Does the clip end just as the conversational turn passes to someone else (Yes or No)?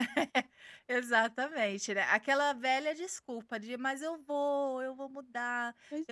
Yes